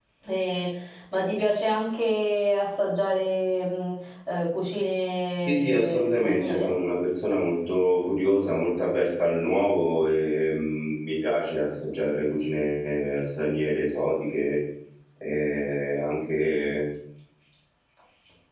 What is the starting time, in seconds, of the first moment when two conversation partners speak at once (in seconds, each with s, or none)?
5.5 s